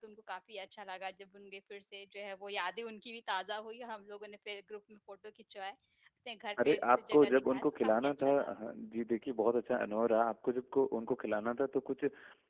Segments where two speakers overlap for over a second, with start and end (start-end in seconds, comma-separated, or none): 6.6-8.5